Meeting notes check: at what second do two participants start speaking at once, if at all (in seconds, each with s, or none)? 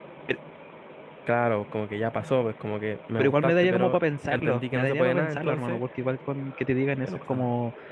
3.2 s